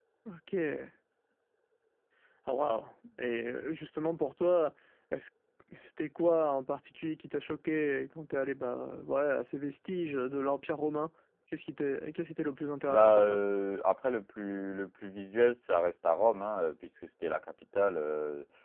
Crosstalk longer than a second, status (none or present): none